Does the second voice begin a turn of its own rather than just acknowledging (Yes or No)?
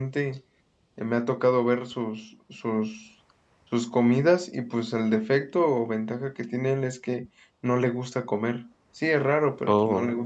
No